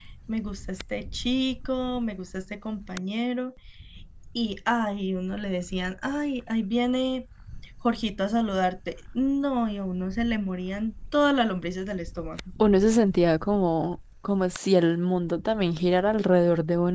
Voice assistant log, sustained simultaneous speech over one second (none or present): none